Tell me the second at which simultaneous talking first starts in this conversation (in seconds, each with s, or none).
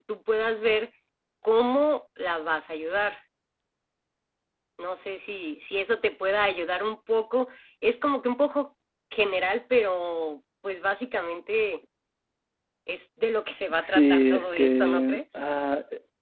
13.8 s